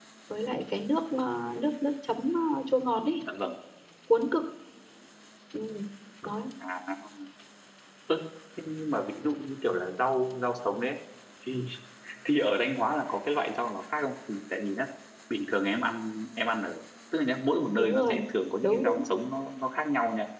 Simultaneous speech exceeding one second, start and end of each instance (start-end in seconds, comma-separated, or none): none